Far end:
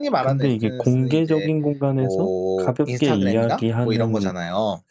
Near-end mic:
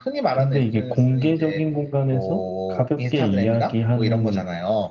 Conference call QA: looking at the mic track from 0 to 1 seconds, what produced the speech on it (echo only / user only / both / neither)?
echo only